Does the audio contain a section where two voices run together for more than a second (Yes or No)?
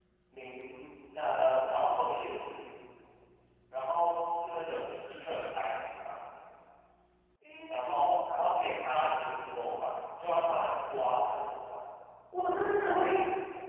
No